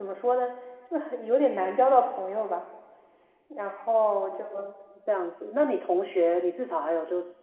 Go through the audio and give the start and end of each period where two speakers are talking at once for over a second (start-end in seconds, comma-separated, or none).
none